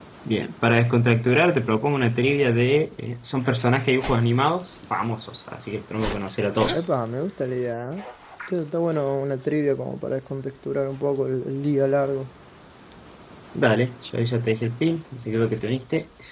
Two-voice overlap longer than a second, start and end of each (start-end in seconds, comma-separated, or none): none